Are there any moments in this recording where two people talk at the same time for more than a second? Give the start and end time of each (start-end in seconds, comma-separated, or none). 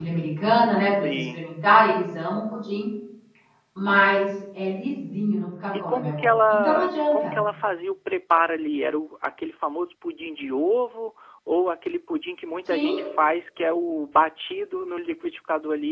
5.7-7.3